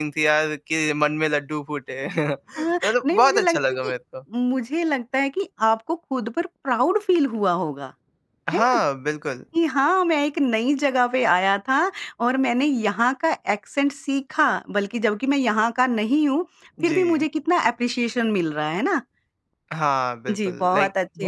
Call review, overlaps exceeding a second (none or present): present